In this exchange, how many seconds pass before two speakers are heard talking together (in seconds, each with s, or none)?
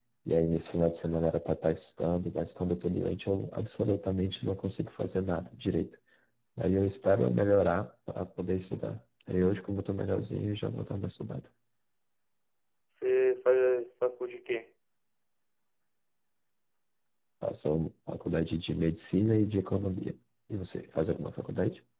none